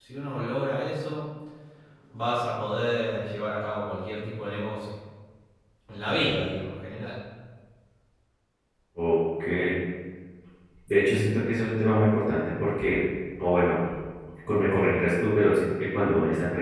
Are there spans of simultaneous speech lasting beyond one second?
No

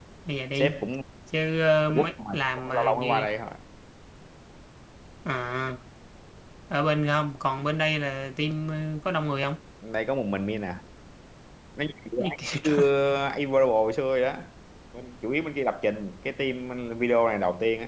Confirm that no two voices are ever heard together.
No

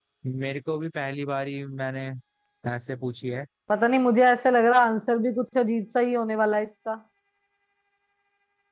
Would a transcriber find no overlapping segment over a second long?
Yes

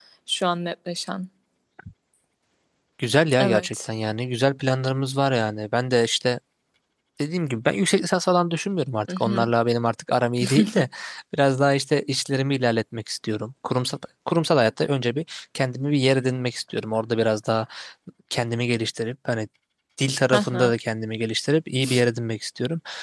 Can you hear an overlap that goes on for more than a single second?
No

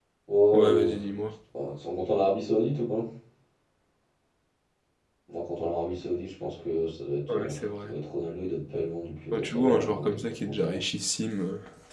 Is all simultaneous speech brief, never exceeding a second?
No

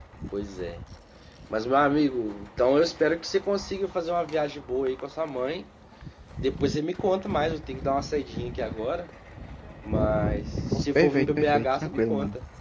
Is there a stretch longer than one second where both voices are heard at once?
Yes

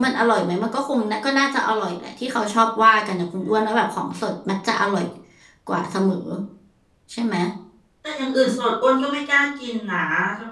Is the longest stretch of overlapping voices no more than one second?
Yes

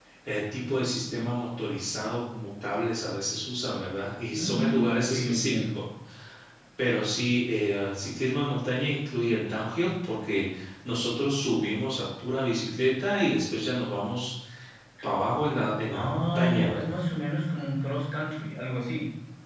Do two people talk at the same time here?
Yes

